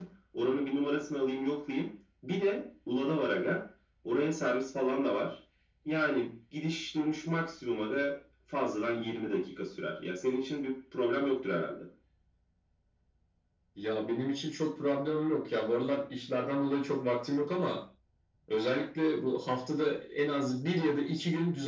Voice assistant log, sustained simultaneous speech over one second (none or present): none